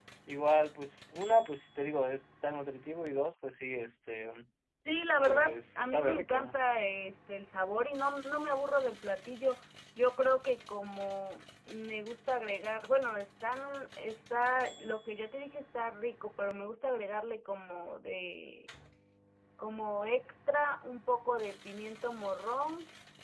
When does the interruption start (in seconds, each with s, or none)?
5.2 s